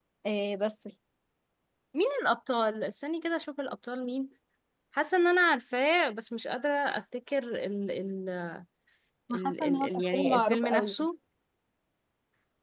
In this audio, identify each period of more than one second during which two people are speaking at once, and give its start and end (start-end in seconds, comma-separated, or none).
9.3-10.9